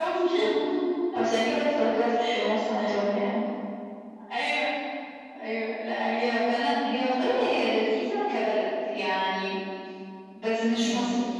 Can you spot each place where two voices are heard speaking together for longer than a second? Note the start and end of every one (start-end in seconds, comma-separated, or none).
none